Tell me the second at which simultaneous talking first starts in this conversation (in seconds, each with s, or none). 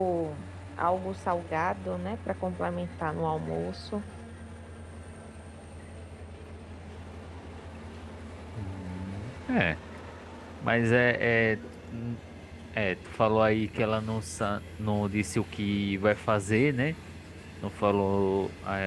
none